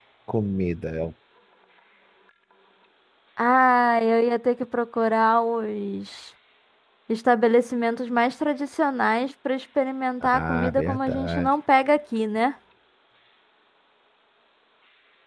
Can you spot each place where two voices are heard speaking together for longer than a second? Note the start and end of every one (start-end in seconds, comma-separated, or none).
10.2-11.5